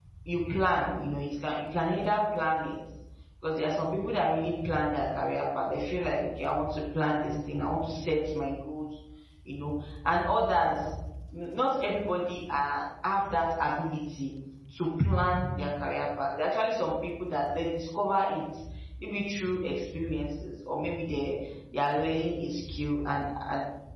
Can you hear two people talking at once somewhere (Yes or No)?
No